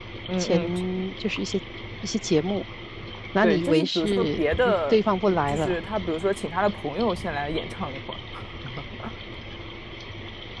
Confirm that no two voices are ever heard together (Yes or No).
No